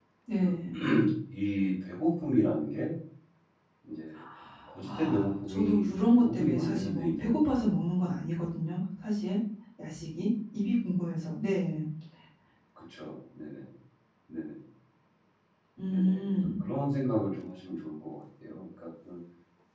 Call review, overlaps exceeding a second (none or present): present